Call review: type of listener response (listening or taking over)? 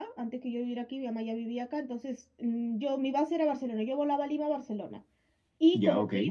listening